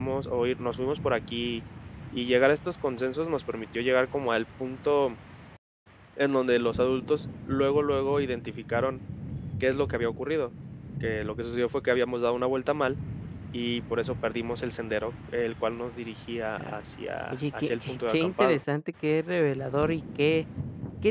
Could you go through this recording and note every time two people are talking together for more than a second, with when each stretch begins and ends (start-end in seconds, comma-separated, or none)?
17.3-18.6